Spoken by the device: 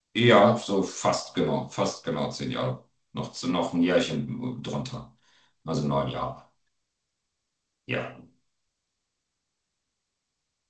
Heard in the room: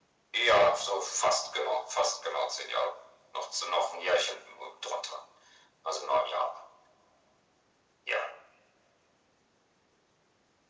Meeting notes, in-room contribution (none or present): none